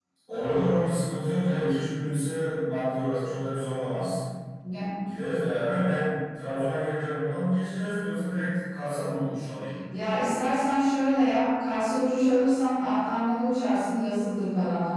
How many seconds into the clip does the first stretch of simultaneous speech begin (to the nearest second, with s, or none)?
none